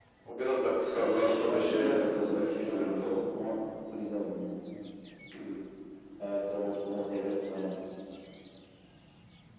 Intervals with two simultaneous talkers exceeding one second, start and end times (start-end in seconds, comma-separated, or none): 0.9-3.2